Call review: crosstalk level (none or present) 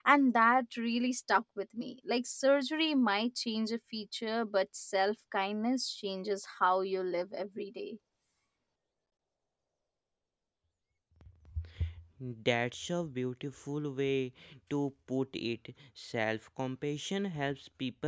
none